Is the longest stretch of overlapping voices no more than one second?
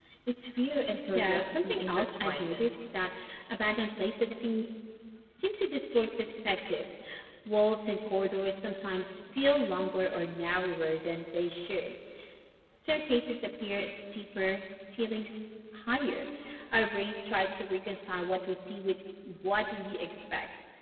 No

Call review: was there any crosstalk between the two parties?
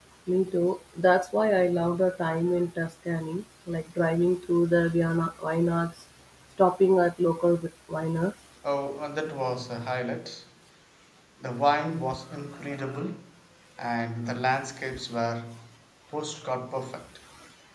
No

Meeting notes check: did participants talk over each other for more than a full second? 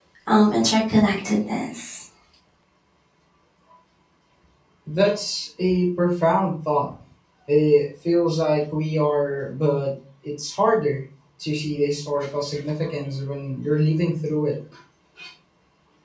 No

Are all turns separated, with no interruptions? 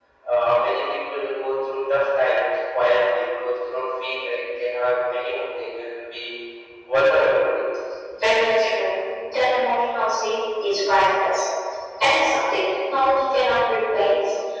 Yes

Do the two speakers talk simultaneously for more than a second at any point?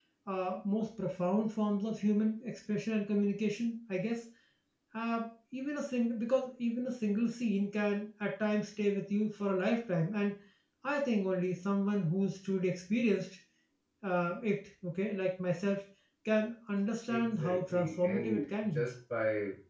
Yes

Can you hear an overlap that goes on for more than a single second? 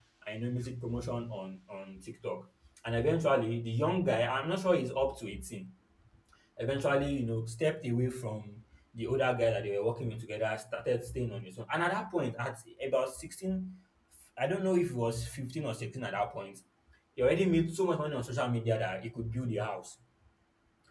No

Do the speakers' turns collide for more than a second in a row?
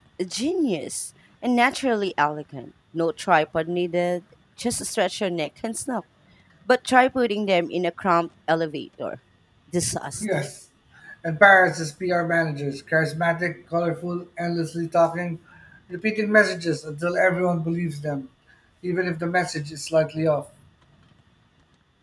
No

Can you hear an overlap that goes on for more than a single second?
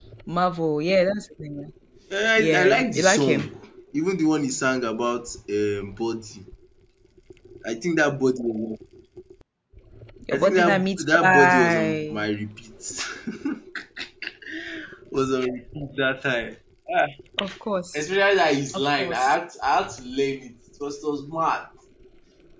Yes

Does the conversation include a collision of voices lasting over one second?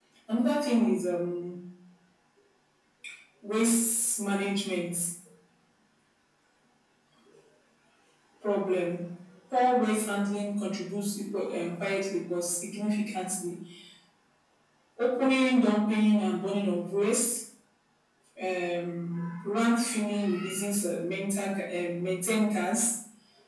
No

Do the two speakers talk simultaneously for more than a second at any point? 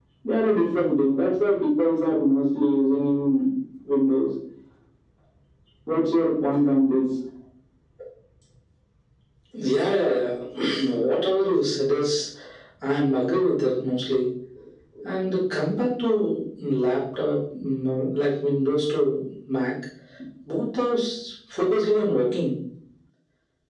No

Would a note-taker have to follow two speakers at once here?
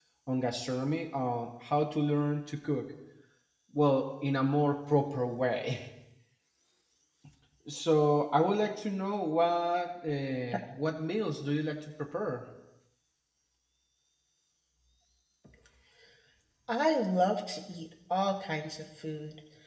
No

